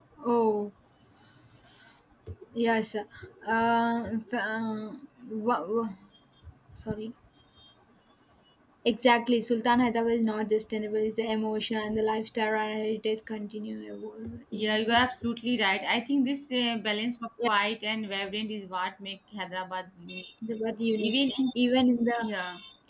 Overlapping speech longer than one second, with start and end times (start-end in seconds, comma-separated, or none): none